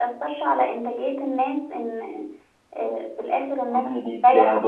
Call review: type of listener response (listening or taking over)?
taking over